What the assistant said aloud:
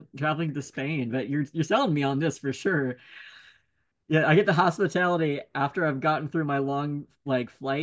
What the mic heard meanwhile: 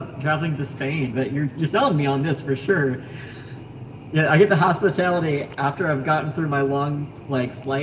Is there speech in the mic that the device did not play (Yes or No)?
No